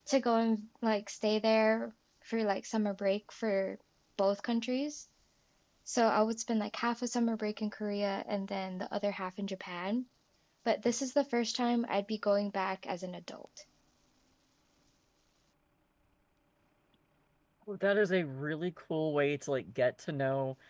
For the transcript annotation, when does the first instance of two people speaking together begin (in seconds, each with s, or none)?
none